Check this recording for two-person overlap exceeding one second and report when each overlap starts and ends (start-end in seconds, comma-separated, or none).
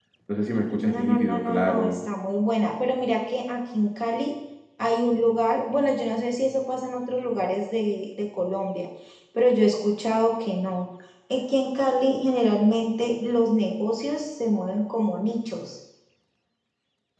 0.8-2.0